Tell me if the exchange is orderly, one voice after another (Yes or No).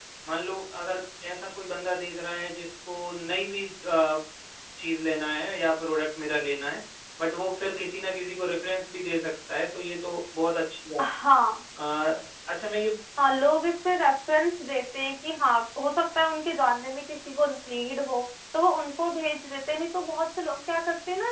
Yes